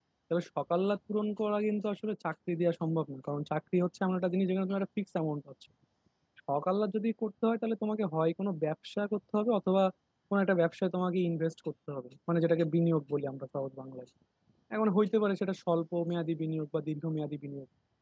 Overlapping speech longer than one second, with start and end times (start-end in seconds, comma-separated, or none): none